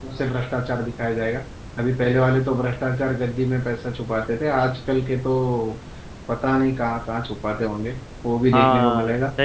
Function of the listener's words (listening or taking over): taking over